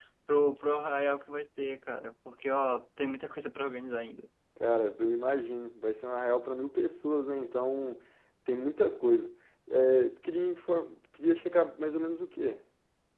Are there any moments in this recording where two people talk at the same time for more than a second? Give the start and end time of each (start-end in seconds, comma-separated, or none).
none